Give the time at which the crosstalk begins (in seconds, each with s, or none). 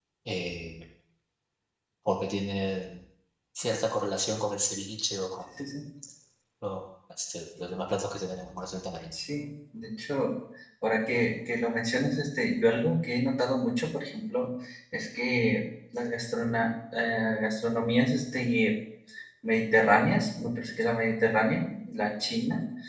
none